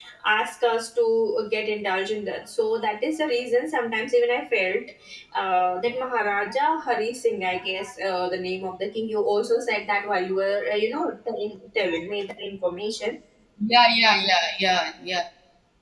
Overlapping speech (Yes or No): No